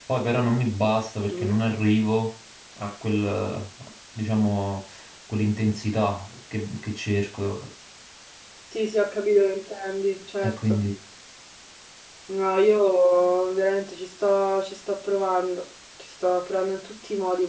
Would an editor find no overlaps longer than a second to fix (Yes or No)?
Yes